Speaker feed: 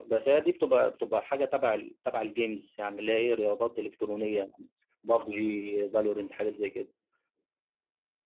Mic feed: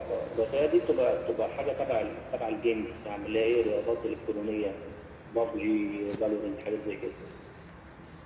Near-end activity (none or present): none